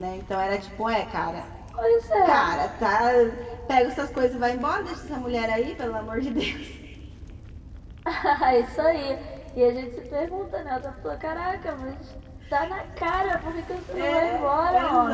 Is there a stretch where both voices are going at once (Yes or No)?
Yes